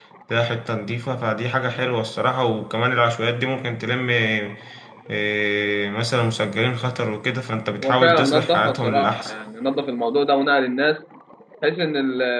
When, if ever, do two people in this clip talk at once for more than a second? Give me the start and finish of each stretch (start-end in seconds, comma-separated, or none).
7.8-9.3